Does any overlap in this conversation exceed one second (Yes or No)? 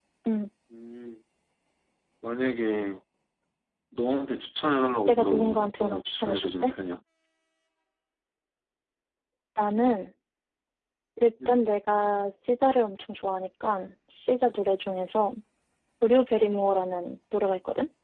Yes